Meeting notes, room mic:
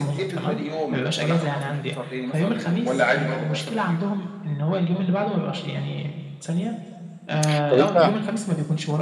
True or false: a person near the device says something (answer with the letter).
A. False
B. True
B